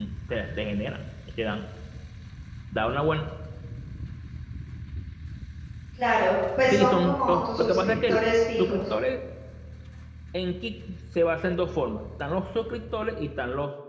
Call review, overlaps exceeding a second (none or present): present